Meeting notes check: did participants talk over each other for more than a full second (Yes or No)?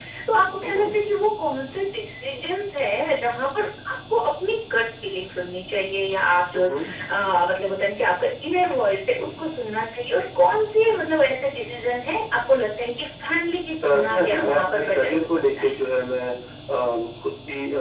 Yes